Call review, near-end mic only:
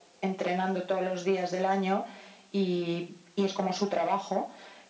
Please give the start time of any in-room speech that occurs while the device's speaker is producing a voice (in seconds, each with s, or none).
none